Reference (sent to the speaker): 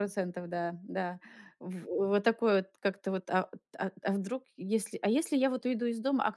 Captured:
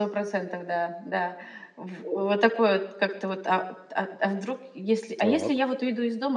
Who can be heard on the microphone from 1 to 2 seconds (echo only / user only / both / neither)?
echo only